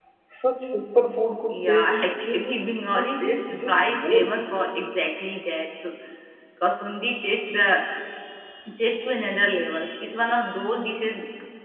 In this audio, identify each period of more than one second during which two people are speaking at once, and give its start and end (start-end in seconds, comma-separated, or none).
3.0-4.3